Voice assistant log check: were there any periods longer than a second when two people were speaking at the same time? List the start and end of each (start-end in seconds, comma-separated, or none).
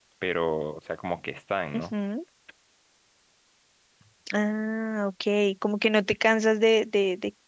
none